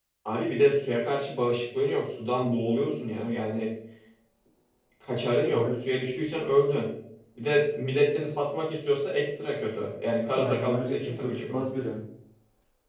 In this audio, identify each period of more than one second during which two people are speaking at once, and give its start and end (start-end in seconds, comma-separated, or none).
10.3-11.7